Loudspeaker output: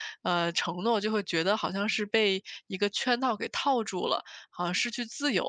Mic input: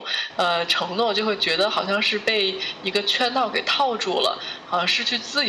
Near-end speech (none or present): none